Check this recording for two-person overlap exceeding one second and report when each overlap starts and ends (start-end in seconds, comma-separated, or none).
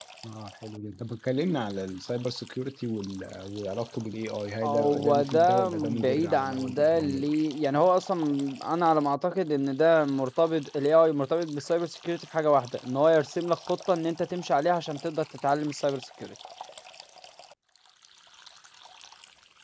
4.6-7.3